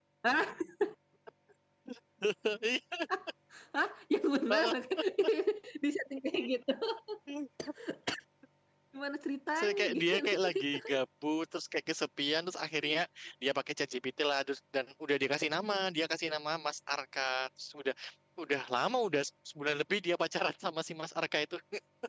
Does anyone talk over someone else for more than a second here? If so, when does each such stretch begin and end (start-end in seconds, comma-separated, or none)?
9.6-10.8